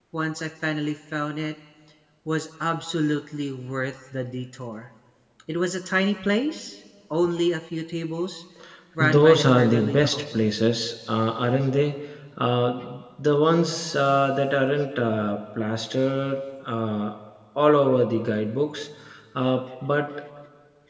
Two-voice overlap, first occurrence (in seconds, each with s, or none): 9.0 s